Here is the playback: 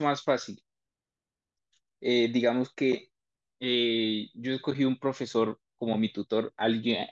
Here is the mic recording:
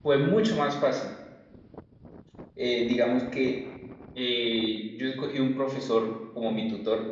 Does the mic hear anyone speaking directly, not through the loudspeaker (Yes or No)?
No